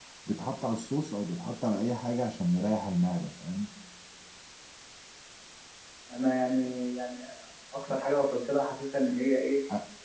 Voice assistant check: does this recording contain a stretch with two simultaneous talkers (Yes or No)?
No